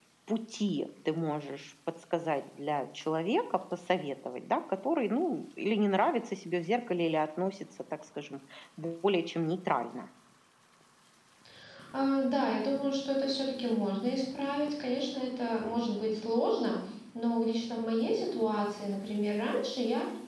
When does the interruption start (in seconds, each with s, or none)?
none